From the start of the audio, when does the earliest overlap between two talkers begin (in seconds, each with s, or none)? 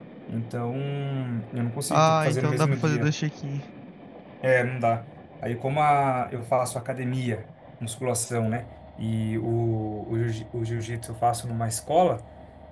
1.9 s